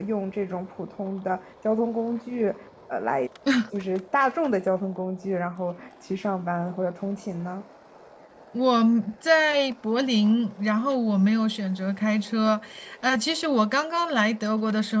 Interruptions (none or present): none